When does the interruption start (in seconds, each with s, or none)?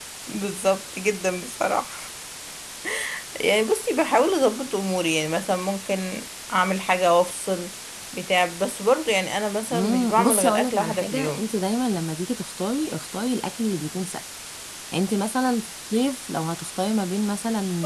9.7 s